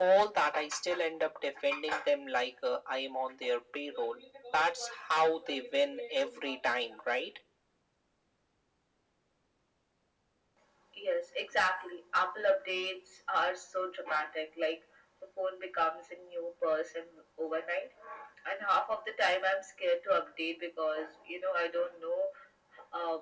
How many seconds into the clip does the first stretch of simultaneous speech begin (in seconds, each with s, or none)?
none